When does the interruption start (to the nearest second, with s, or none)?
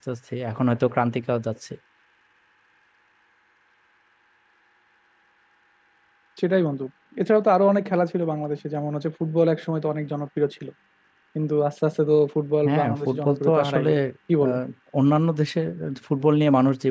13 s